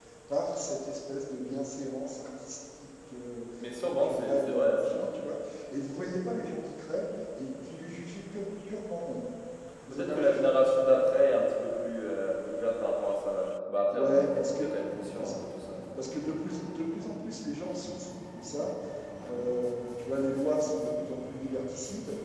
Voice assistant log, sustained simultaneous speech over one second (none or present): present